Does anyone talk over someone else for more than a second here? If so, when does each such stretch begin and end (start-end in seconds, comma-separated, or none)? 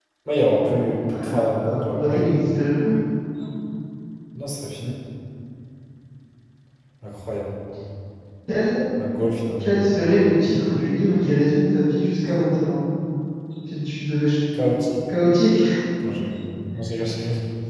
0.6-2.3